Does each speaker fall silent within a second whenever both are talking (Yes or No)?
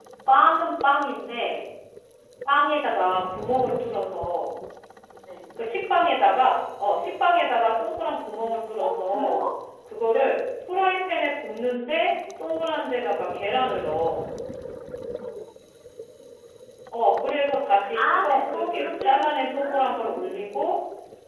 No